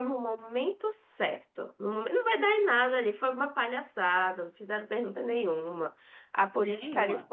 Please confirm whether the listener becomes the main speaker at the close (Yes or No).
No